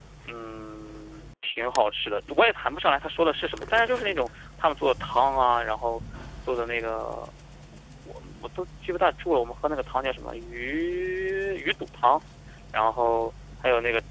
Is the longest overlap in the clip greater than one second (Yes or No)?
No